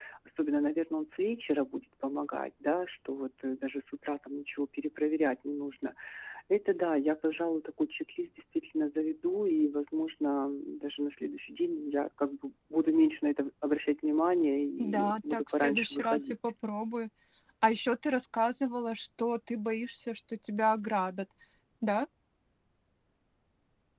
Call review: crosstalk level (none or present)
present